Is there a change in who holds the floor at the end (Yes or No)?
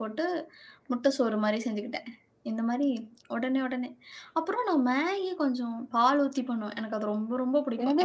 Yes